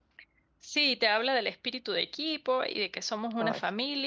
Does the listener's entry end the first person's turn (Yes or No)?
No